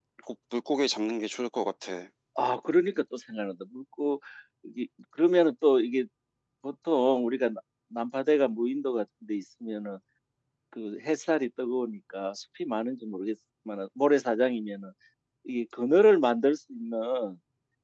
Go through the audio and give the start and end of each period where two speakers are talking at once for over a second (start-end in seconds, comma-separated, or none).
none